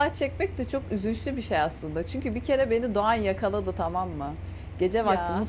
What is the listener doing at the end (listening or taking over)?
listening